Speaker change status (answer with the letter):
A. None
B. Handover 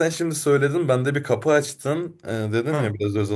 A